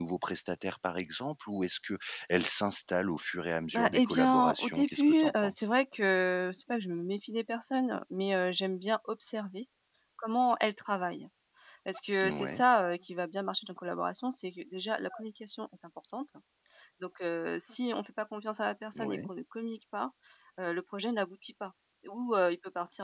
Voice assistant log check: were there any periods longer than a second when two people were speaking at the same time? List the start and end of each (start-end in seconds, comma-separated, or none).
3.7-5.7